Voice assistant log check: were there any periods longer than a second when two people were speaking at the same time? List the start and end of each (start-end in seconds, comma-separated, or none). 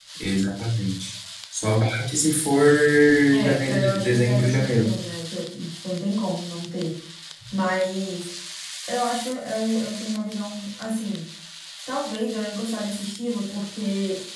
3.4-4.9